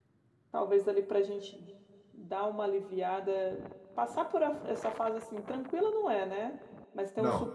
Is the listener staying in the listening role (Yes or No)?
Yes